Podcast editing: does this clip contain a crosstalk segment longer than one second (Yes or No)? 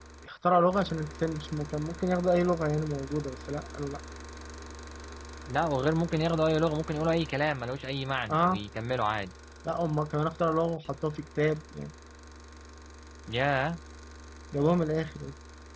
No